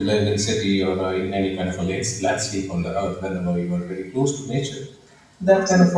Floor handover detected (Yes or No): No